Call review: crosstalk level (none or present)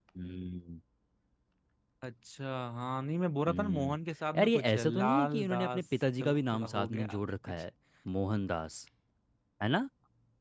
present